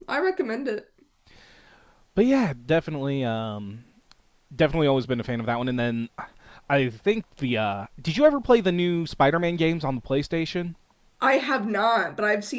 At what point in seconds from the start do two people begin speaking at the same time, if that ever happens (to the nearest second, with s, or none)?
none